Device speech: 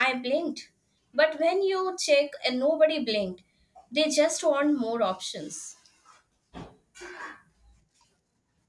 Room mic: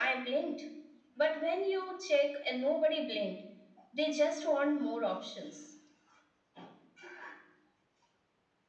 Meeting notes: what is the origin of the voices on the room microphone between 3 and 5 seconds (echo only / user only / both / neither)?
echo only